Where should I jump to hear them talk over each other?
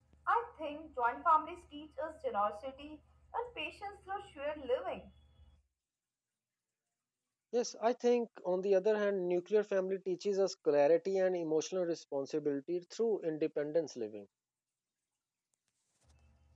none

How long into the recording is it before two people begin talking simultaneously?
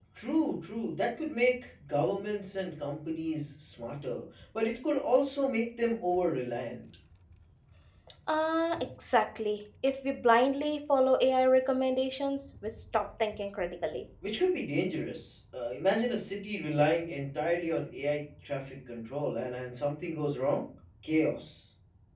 none

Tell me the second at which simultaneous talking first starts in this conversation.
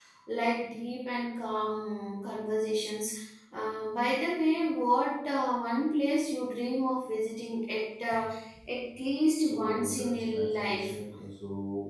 9 s

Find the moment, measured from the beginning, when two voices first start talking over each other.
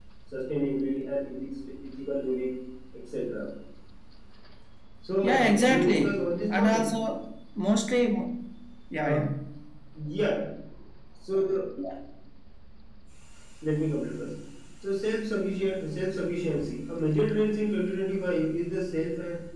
5 s

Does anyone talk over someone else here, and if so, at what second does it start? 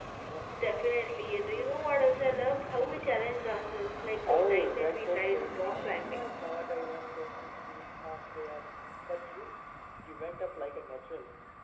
4 s

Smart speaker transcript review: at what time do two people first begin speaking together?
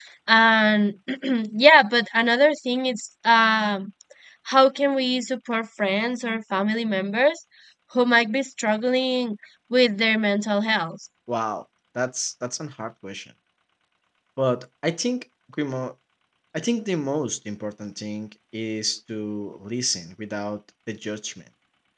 none

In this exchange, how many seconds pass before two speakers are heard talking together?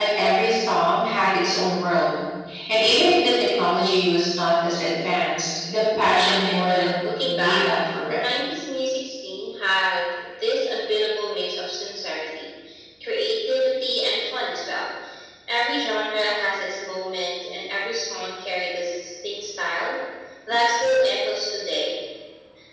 6 s

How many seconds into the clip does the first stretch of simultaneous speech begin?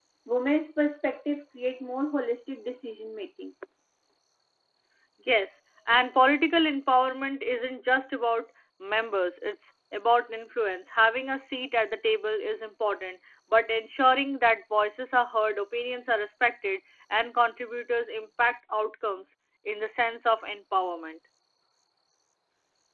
none

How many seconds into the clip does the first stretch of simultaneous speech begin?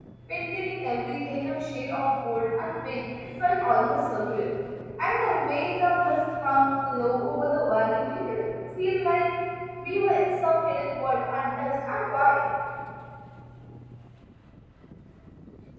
none

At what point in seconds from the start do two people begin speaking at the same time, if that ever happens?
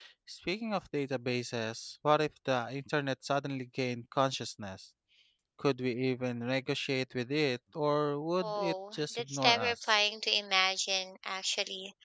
8 s

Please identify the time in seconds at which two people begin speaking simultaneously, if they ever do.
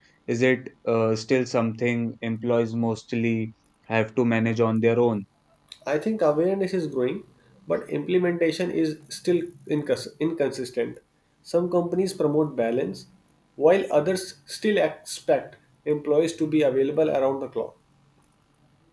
none

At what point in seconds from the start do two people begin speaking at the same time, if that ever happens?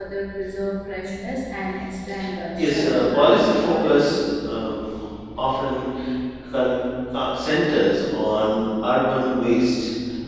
3 s

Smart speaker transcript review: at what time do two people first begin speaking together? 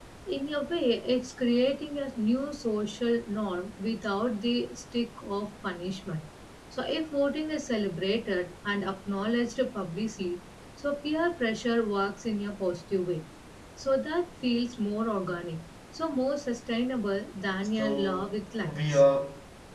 18 s

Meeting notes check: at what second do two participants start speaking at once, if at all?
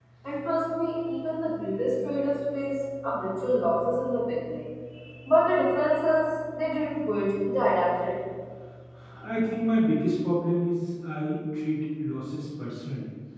none

